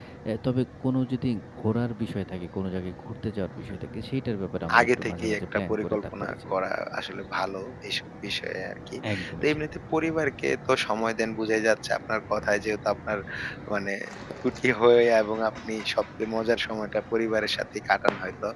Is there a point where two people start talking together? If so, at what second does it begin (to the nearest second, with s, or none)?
5 s